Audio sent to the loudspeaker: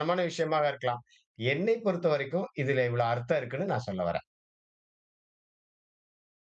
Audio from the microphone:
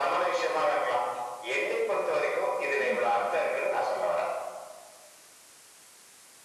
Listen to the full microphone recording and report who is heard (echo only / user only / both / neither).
both